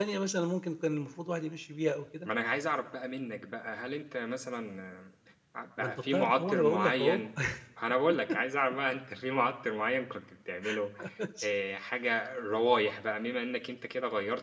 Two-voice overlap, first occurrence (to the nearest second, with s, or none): 6 s